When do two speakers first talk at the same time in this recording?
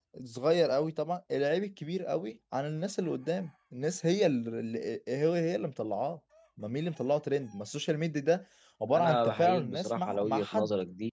8.9 s

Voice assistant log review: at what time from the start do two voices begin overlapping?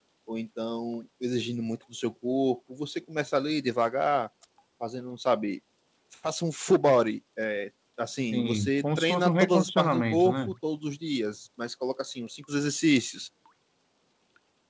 8.3 s

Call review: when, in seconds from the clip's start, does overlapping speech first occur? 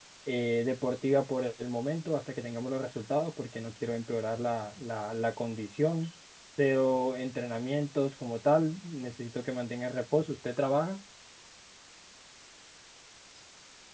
none

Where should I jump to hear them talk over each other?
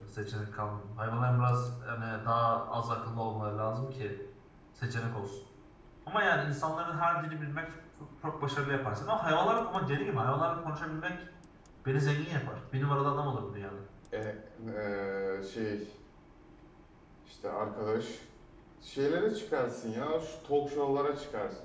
none

